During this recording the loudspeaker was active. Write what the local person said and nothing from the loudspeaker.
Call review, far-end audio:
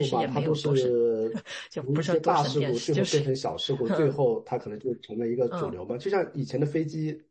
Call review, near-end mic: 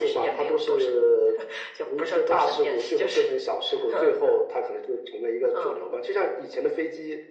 none

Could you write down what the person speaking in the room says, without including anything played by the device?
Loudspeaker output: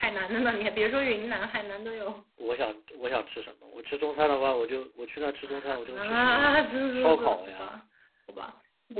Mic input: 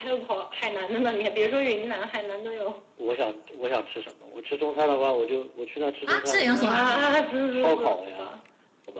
啊？是连锁啊？

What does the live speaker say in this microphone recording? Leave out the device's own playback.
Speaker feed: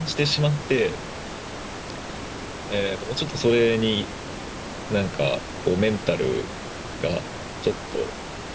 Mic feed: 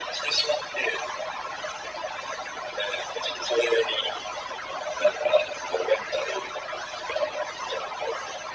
none

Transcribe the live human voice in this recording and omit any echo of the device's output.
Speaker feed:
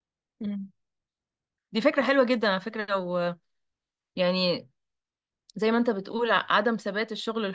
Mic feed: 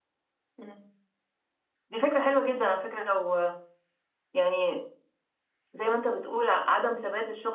none

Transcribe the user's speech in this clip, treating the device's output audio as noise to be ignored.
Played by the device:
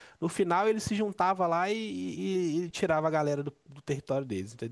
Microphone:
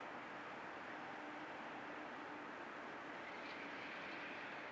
none

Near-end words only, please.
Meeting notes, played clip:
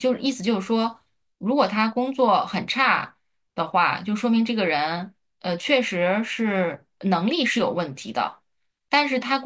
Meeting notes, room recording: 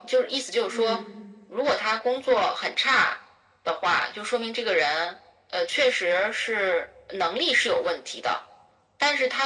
嗯

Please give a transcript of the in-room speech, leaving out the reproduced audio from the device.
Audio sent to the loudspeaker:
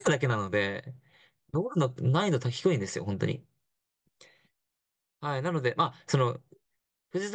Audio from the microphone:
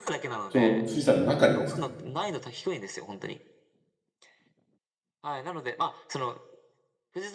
その、富士山の中にですか

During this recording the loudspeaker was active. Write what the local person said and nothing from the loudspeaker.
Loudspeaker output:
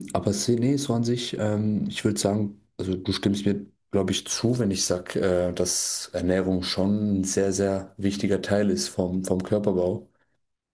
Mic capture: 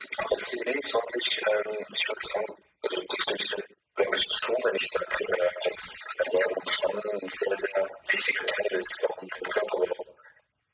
none

